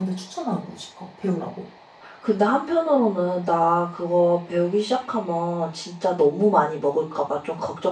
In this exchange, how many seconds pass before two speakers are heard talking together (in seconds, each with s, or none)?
none